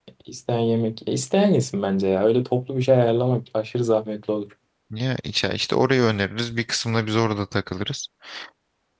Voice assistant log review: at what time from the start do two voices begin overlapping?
none

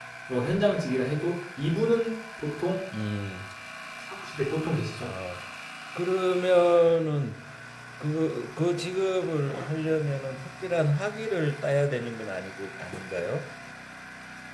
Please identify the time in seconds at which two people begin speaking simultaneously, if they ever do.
none

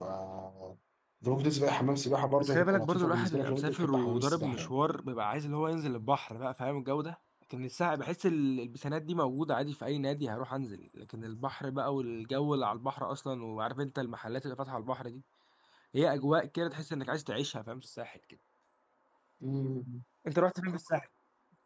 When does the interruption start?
2.4 s

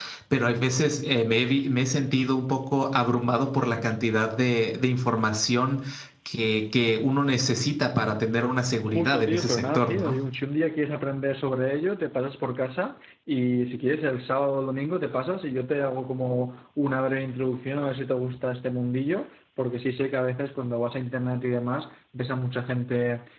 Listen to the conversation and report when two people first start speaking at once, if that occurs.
8.8 s

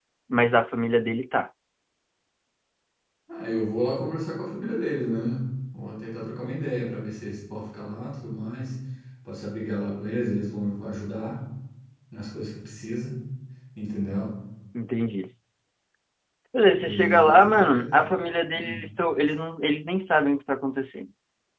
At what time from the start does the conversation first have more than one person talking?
16.7 s

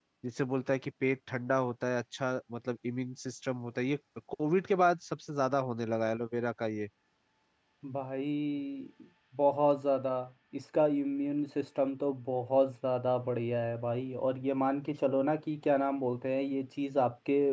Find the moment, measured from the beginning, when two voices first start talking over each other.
none

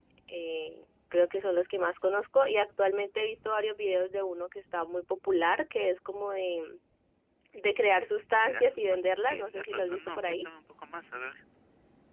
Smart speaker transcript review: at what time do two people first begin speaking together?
8.4 s

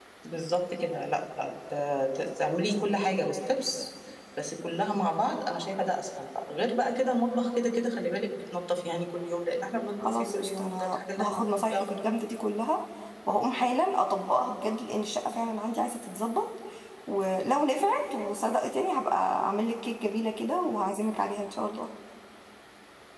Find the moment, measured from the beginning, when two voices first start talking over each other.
10.0 s

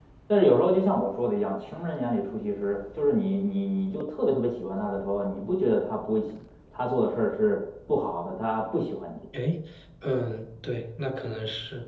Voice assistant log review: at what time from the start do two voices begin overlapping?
none

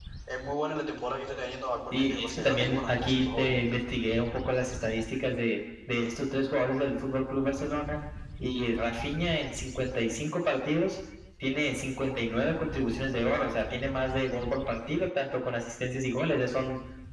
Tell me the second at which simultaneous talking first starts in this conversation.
1.9 s

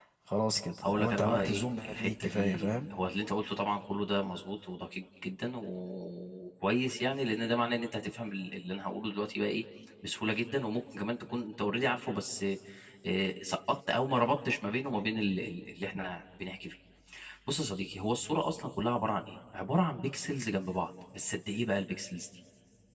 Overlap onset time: 0.8 s

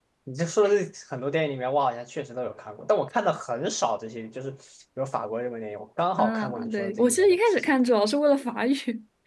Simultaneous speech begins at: 6.2 s

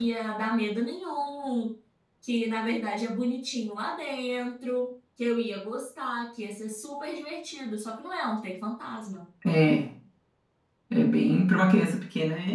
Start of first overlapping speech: none

